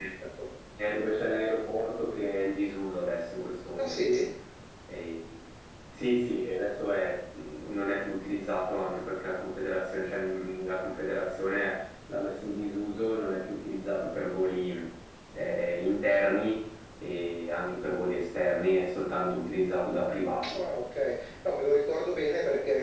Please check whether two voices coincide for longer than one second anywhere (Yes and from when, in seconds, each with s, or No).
No